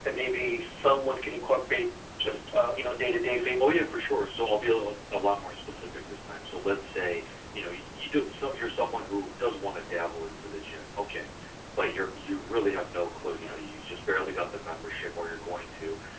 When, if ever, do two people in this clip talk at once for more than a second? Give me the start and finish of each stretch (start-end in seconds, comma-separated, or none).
none